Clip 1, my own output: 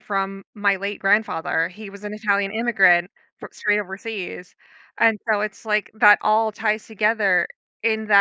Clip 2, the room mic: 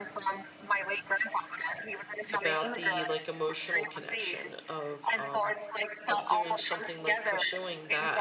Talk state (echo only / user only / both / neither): both